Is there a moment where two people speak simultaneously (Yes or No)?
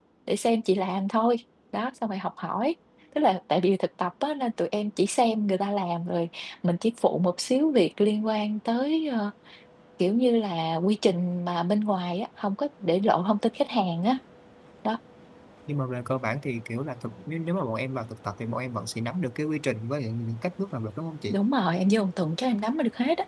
No